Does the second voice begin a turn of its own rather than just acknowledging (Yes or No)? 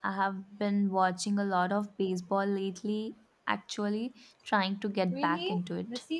Yes